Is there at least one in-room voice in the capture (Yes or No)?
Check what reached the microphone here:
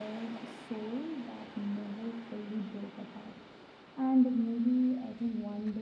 Yes